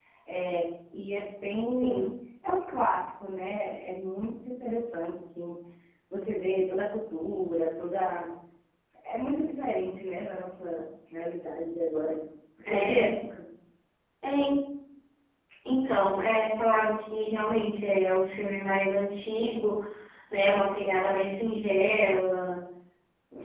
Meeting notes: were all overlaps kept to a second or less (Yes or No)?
Yes